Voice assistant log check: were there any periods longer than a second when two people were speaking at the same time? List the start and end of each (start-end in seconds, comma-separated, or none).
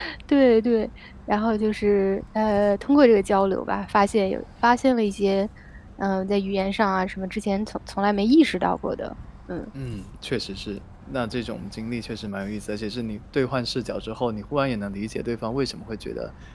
none